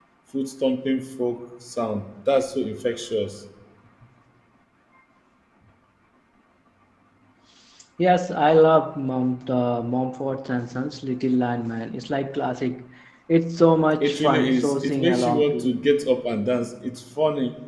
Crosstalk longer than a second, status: present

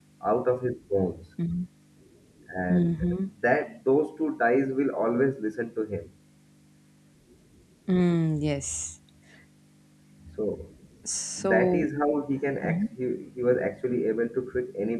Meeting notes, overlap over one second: none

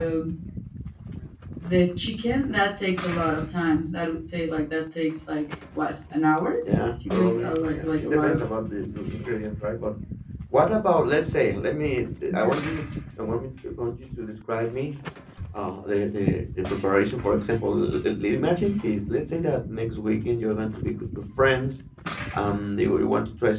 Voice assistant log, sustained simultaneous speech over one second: present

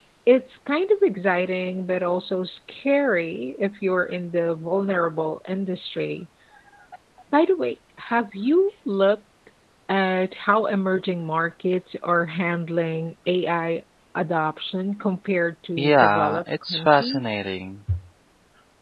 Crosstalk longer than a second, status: present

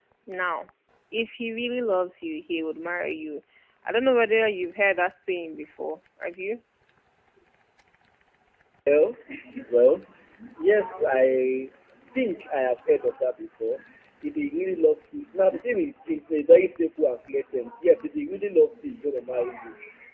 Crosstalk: none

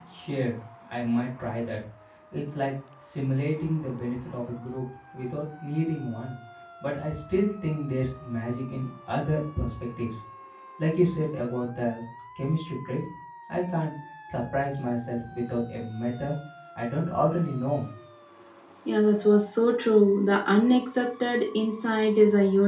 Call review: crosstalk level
none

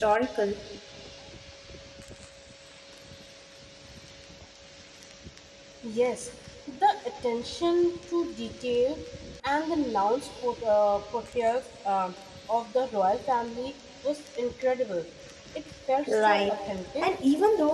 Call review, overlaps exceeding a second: none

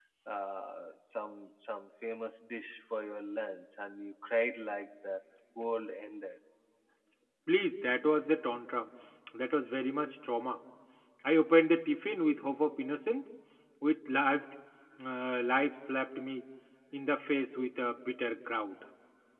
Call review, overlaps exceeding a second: none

